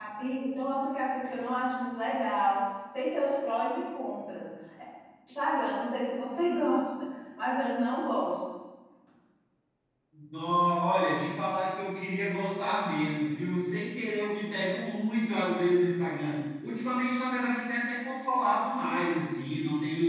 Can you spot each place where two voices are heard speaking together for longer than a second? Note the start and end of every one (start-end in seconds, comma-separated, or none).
none